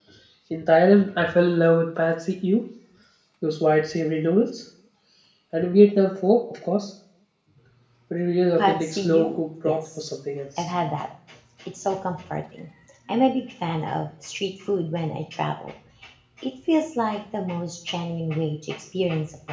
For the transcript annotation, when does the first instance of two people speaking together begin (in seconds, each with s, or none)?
8.6 s